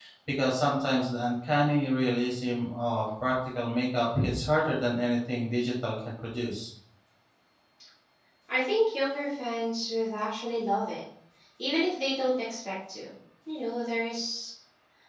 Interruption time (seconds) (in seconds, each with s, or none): none